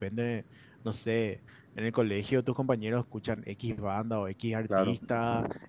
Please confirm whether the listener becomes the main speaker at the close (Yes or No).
No